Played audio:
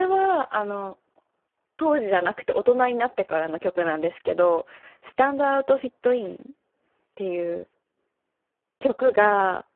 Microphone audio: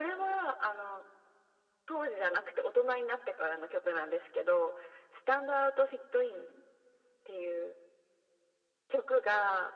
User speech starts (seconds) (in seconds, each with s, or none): none